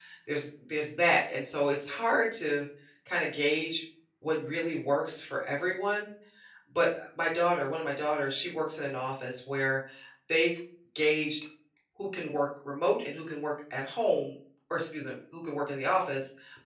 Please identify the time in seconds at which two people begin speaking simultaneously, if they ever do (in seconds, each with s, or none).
none